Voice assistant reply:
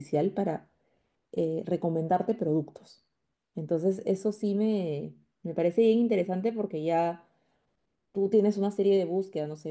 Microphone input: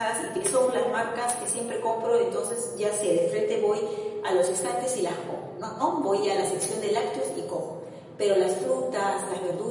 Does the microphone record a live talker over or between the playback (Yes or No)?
Yes